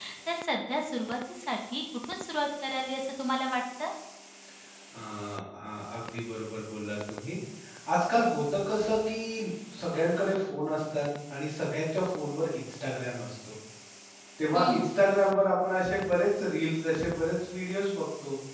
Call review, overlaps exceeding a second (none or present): none